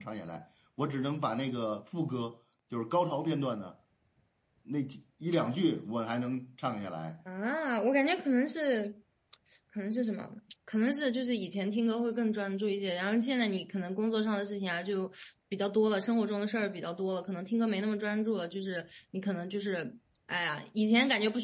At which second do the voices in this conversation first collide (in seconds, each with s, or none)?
none